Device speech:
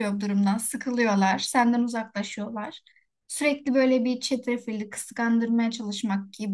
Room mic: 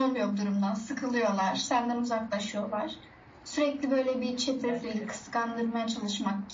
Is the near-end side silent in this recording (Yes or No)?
No